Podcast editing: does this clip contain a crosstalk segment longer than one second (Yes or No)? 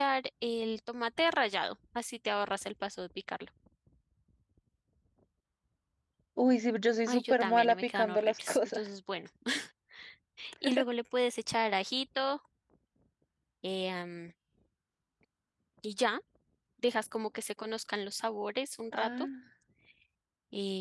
Yes